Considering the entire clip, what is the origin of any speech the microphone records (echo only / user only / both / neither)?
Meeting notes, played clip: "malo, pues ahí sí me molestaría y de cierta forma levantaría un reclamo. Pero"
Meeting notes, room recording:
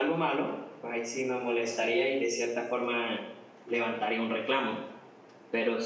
echo only